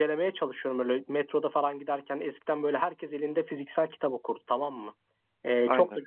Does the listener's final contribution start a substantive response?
No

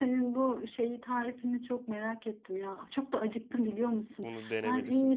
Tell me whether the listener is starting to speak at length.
No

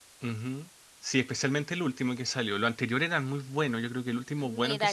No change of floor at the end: No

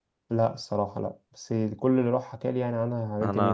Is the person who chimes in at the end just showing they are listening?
No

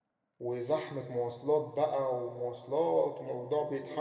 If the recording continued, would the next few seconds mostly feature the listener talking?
Yes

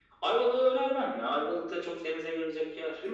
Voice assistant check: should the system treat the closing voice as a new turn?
Yes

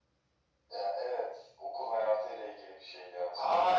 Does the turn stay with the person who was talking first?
No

